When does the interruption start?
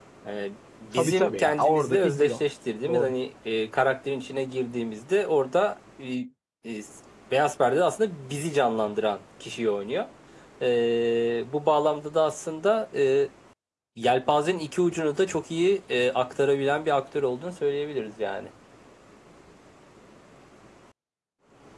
0.9 s

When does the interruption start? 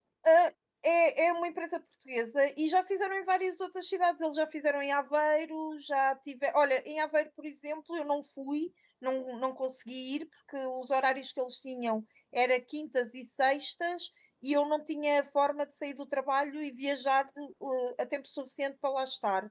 none

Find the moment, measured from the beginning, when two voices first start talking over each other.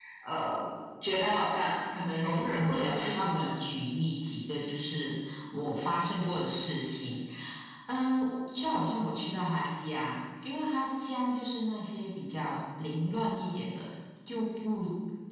2.0 s

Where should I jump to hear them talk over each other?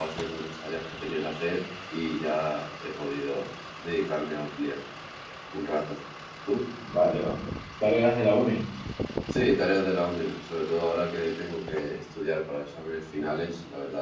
none

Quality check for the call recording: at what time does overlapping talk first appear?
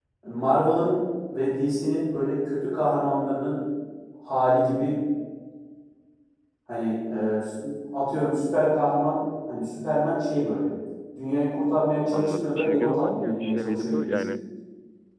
12.1 s

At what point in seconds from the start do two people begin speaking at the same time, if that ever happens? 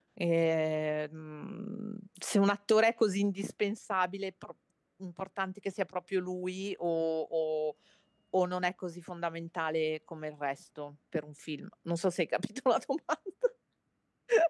none

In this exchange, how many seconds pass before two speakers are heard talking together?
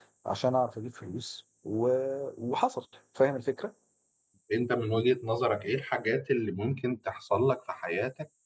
none

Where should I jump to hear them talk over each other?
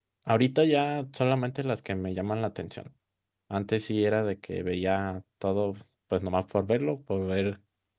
none

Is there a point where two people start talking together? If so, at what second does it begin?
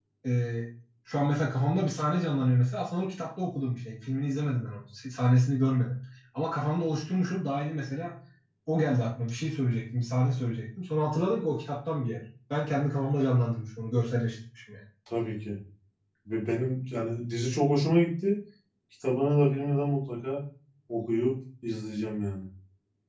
none

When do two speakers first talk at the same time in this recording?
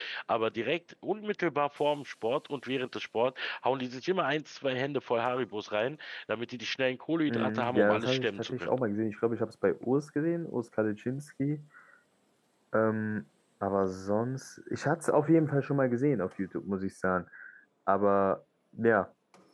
7.3 s

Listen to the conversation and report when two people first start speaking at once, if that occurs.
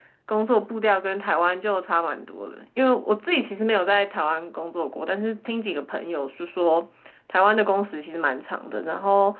none

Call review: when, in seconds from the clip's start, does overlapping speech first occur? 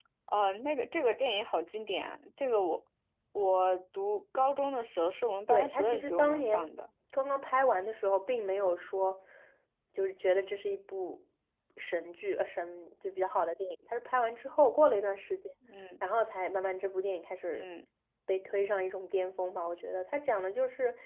5.5 s

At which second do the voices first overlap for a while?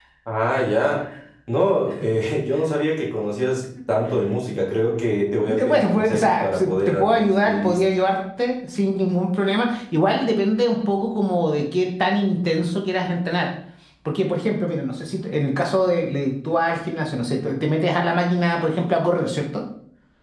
5.5 s

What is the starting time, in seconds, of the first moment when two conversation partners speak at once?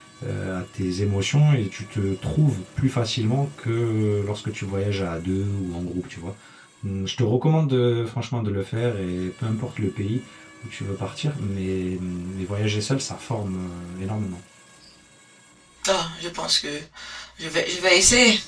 none

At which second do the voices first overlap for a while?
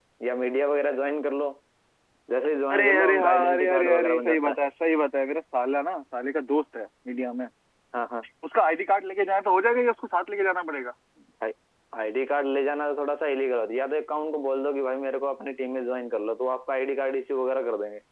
2.7 s

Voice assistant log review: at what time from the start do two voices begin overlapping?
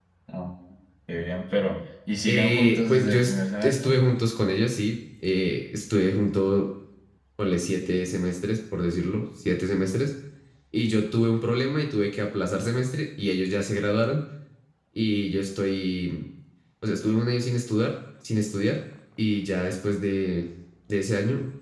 2.3 s

